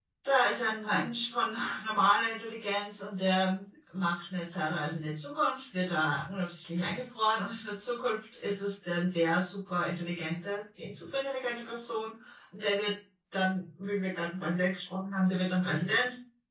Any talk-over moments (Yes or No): No